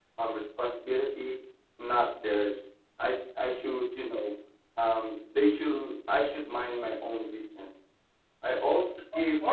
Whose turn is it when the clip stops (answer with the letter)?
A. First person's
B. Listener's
B